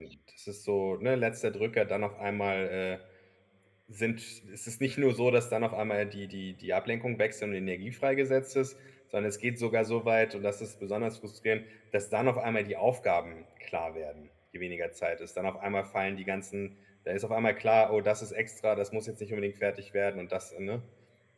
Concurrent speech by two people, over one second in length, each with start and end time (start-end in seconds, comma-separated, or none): none